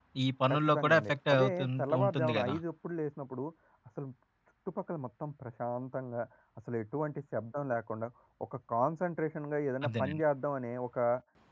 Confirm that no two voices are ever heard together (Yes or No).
No